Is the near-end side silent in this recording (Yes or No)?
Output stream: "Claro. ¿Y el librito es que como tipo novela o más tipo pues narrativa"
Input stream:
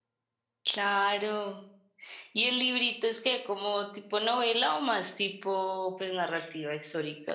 Yes